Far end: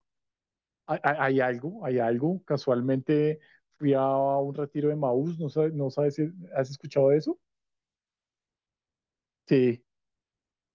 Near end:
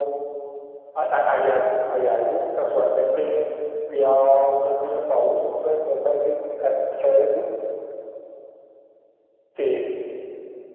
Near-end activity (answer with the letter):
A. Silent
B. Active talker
A